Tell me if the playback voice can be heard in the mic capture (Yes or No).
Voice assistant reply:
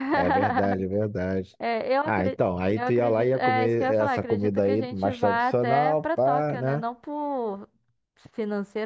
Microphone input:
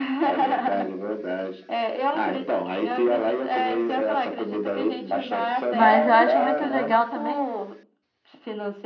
Yes